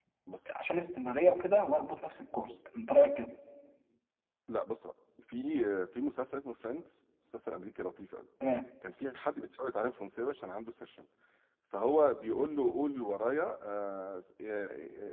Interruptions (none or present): none